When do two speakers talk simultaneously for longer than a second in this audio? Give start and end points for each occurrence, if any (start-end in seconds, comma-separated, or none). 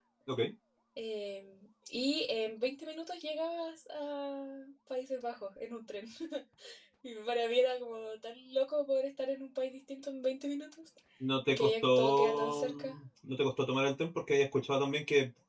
11.5-13.0